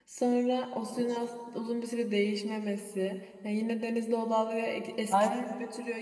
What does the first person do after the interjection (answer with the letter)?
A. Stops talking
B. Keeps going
B